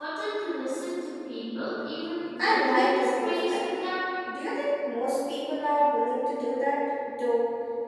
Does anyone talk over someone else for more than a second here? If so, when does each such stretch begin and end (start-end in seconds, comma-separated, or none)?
2.4-3.8